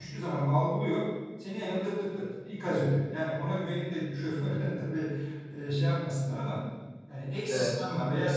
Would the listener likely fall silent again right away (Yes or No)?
Yes